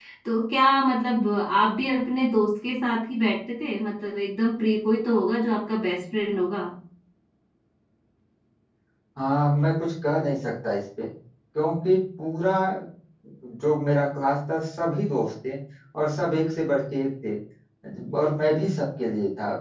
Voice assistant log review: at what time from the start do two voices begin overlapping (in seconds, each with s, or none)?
none